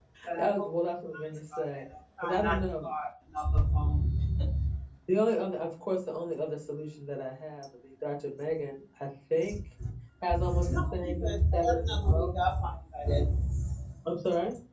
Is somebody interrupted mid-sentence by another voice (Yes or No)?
Yes